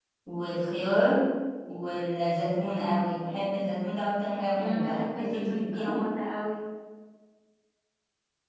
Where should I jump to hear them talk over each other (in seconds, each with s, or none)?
4.5 s